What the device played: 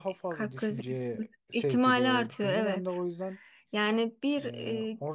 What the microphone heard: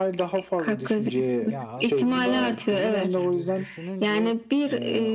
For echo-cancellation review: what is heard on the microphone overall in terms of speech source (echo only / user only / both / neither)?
both